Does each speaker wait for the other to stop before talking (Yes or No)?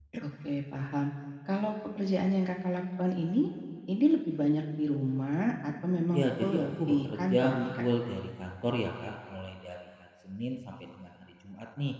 No